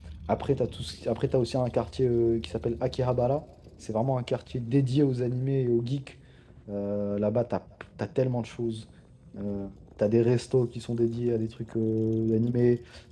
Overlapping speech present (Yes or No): No